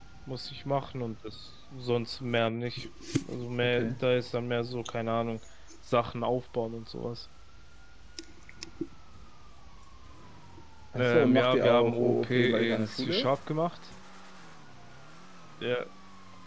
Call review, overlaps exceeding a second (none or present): present